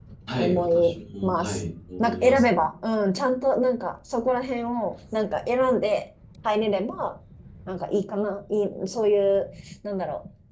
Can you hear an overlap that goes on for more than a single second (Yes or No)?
Yes